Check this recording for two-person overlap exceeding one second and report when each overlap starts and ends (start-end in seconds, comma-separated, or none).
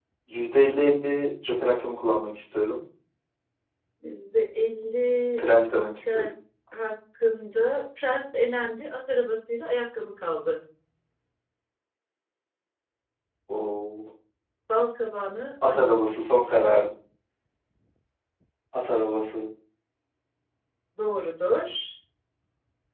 none